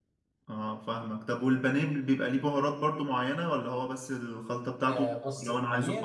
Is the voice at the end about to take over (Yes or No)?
Yes